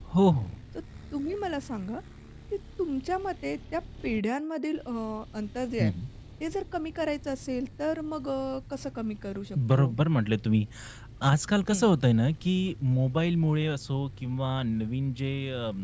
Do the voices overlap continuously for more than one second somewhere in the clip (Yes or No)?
No